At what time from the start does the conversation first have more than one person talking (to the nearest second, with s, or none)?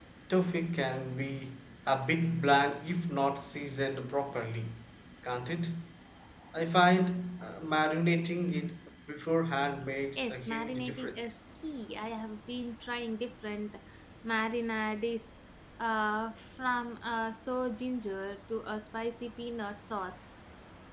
10 s